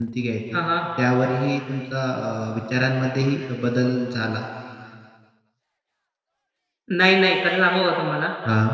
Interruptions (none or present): none